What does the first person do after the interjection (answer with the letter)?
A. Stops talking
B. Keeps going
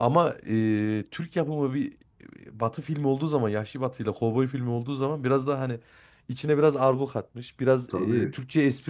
B